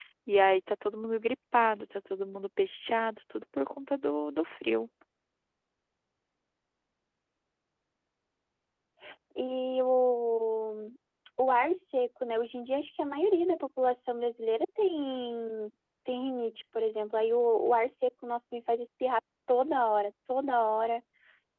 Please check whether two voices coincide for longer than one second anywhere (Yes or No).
No